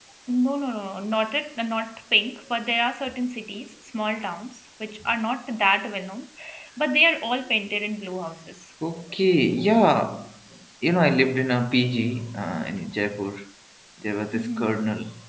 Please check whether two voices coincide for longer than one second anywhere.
No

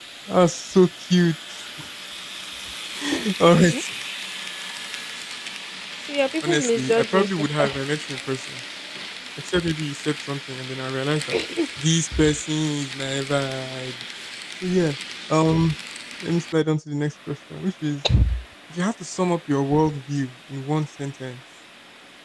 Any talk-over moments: Yes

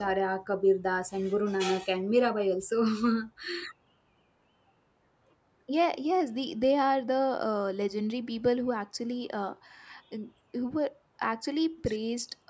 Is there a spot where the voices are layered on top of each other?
No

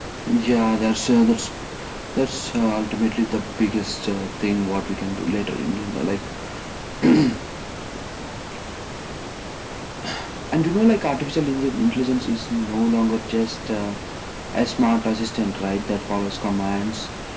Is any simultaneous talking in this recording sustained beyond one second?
No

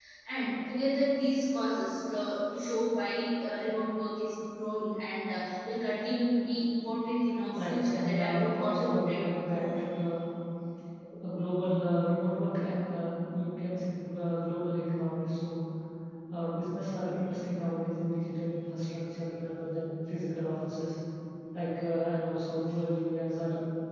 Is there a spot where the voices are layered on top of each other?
Yes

